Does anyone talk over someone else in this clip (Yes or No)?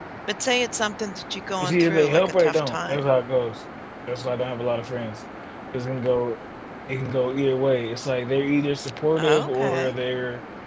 Yes